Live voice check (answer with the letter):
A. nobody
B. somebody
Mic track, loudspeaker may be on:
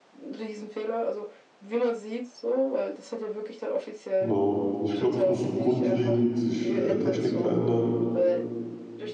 B